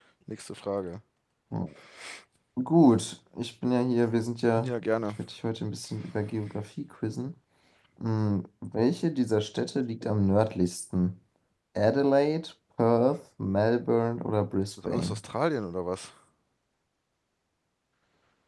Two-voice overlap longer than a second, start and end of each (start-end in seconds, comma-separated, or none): none